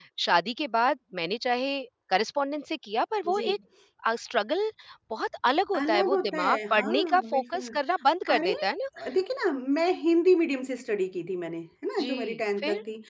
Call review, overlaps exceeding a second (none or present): present